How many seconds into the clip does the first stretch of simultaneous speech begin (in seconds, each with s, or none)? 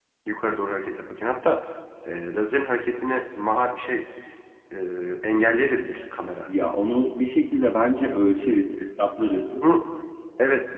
none